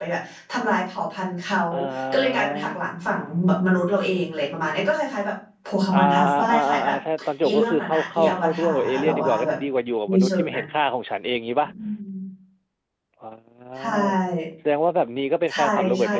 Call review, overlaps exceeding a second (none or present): present